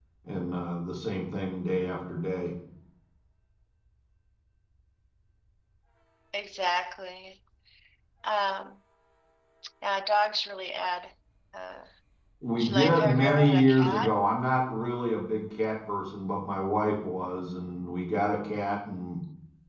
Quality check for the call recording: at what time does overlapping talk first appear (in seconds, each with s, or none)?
12.6 s